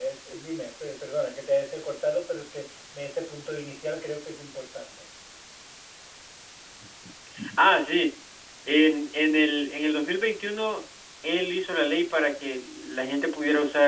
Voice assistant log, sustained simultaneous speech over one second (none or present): none